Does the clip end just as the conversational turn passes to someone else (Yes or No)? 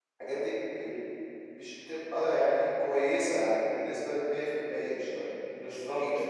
Yes